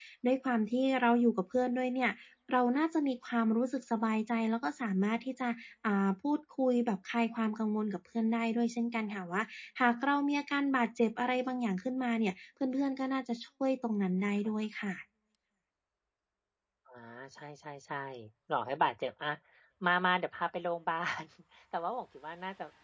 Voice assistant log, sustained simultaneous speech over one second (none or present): none